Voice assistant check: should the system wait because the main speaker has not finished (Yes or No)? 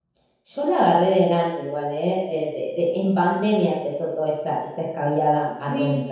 No